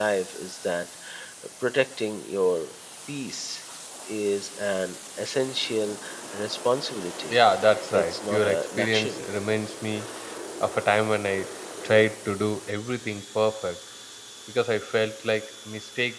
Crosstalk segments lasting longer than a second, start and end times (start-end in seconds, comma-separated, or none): 7.9-9.2